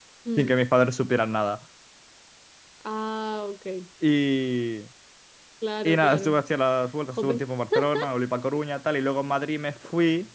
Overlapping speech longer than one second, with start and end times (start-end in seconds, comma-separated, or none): none